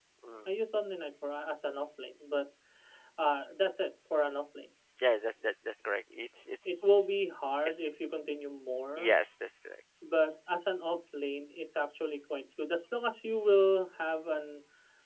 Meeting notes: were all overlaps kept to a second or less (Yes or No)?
Yes